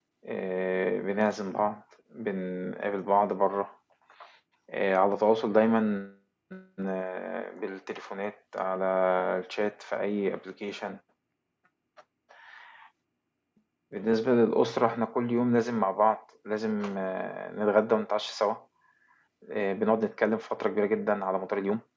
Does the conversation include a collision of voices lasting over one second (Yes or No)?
No